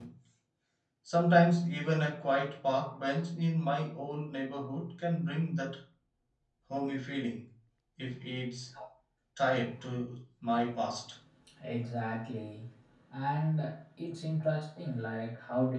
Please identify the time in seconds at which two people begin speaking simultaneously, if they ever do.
none

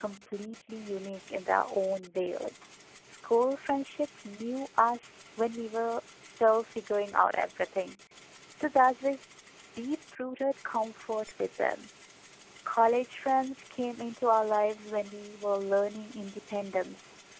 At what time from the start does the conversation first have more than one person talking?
none

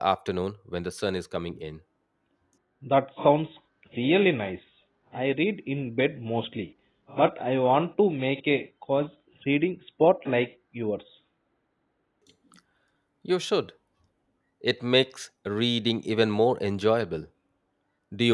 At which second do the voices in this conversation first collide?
none

